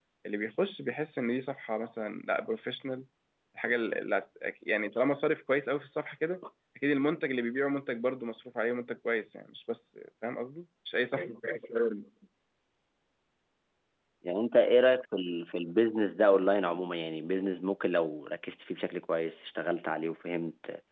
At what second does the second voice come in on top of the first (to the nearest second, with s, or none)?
none